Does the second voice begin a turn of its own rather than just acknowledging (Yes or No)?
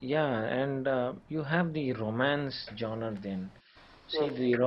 No